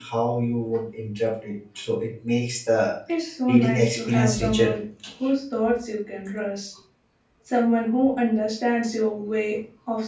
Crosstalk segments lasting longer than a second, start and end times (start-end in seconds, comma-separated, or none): 3.5-4.7